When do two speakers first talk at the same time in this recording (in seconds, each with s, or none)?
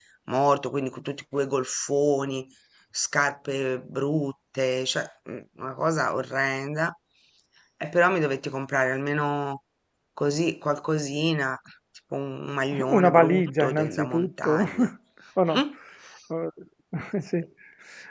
12.9 s